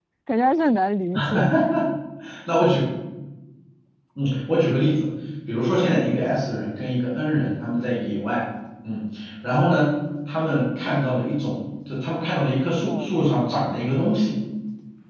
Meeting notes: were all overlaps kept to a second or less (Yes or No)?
Yes